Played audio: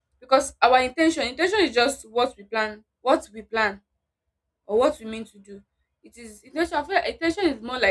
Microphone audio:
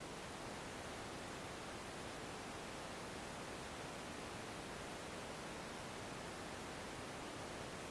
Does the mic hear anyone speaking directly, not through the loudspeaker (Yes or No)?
No